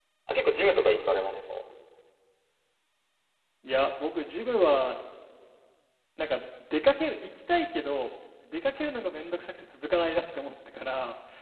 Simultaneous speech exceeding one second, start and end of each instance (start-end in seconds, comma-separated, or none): none